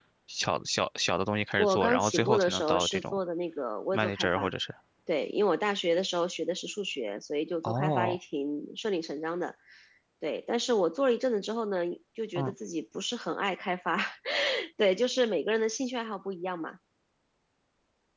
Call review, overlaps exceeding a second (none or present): present